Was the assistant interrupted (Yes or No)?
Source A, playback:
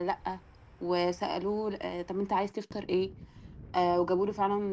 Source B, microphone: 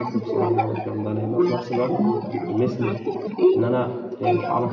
Yes